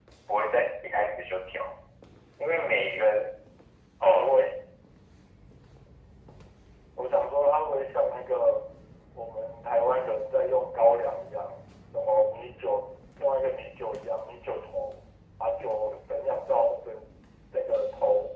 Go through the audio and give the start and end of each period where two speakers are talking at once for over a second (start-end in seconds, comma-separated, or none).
none